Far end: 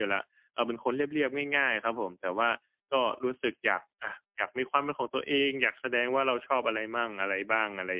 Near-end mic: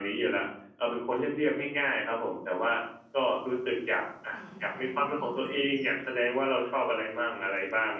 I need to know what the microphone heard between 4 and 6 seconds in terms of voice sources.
both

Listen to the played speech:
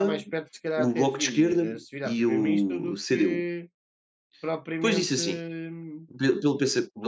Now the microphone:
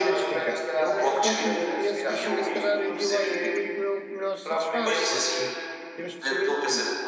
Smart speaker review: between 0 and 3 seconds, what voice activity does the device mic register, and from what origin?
both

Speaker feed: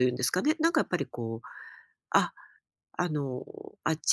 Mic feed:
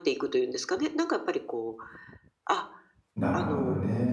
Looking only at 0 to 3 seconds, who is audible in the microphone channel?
echo only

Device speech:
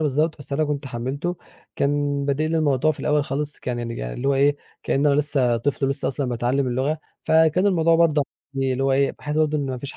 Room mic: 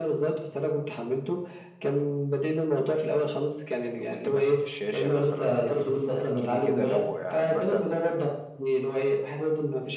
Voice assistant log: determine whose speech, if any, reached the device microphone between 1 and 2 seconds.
echo only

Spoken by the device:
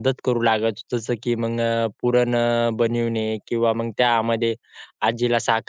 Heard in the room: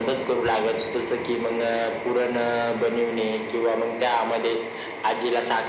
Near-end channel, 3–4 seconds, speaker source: echo only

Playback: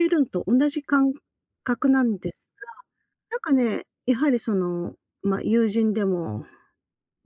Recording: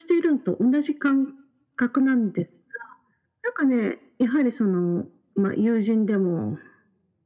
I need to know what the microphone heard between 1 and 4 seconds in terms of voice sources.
echo only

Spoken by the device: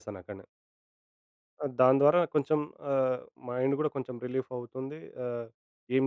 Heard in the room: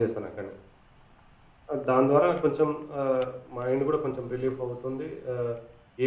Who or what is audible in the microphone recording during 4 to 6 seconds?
echo only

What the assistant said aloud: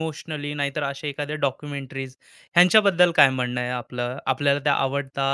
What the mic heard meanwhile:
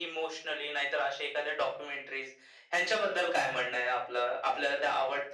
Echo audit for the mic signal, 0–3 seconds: echo only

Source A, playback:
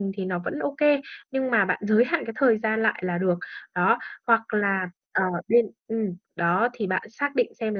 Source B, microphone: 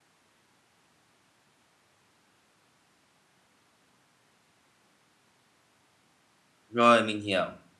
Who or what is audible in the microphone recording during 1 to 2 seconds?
neither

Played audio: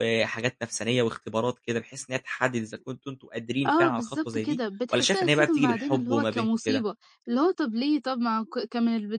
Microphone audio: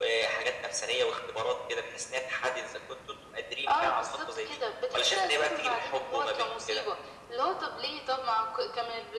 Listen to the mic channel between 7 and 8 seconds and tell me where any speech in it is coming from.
echo only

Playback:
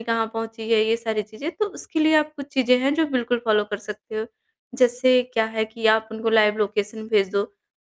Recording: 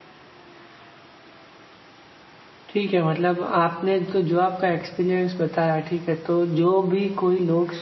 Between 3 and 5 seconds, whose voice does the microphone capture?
user only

